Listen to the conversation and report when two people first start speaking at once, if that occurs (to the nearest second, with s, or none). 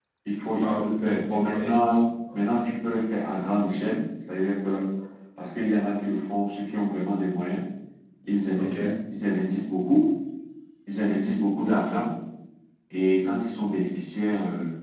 1 s